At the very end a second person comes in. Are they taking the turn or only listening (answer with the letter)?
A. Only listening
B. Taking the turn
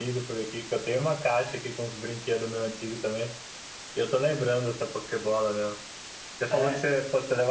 A